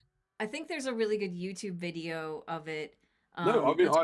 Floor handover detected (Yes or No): Yes